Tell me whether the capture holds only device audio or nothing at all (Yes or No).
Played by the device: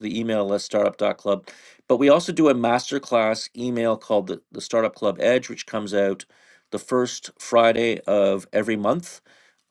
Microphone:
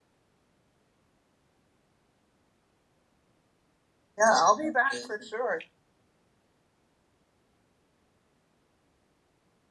No